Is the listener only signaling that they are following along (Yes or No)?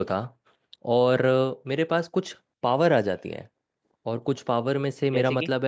Yes